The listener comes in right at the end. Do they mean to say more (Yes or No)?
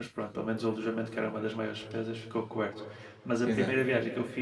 No